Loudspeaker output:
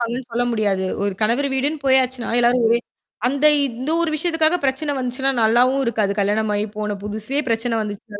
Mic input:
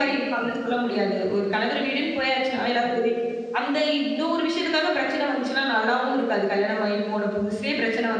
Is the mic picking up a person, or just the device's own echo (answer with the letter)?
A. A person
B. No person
B